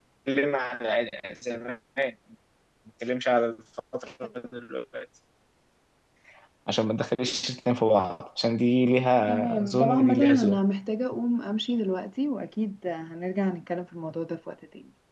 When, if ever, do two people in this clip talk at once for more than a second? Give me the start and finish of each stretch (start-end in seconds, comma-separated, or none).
9.3-10.6